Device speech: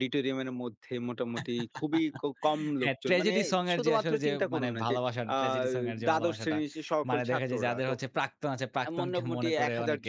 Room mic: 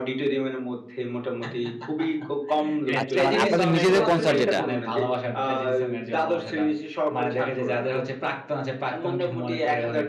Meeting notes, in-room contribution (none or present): present